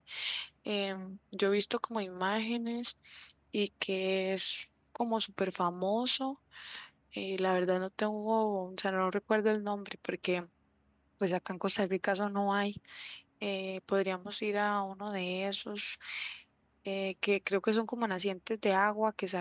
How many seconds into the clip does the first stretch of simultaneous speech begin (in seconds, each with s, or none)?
none